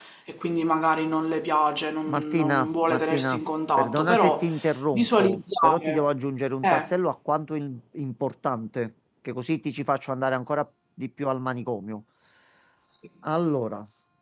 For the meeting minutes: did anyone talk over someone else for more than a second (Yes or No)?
Yes